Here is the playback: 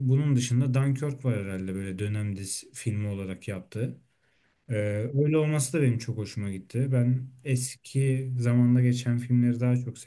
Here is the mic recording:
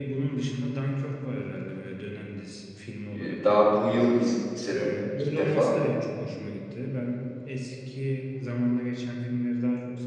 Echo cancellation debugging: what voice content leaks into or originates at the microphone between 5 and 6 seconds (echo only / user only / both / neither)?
both